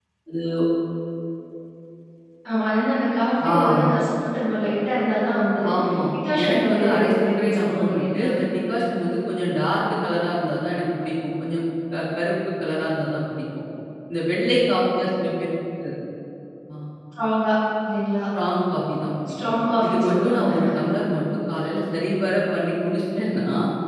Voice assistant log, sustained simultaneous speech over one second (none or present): present